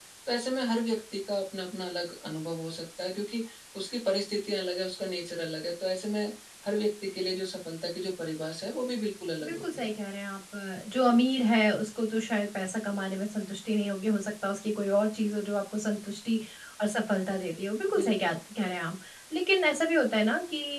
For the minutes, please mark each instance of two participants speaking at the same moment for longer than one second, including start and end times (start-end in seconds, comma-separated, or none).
none